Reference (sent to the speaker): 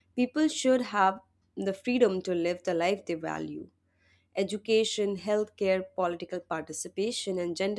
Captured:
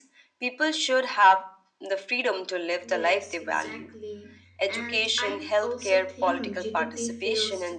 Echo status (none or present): present